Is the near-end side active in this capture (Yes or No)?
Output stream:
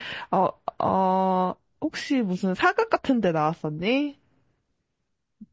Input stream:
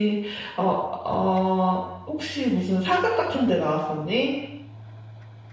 No